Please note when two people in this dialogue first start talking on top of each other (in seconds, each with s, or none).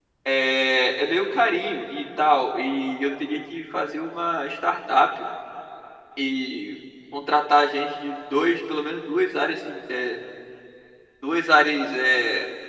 none